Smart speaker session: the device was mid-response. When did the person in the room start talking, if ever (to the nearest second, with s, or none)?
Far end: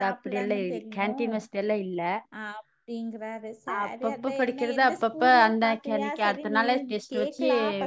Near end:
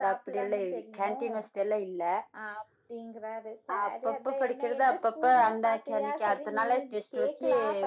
none